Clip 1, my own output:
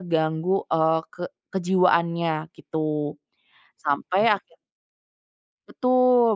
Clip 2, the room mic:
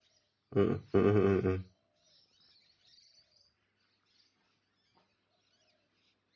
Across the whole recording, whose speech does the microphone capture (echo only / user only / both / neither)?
user only